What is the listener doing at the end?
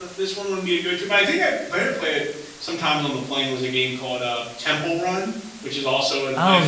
listening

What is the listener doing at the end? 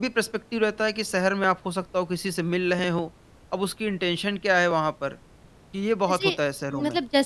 taking over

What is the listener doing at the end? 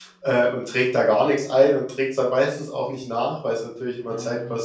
listening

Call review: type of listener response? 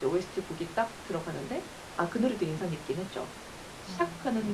listening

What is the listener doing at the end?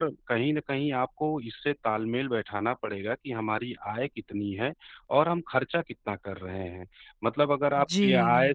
listening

